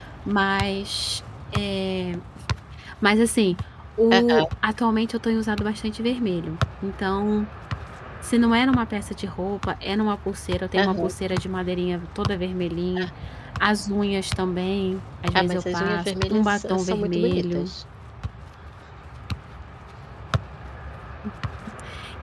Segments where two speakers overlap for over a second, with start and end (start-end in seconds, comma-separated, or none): 15.3-17.7